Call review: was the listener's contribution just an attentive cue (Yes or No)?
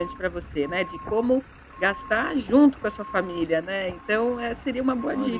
No